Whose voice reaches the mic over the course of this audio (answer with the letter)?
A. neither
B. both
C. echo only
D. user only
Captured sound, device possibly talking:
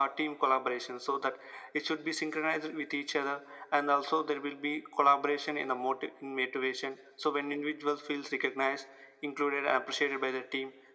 C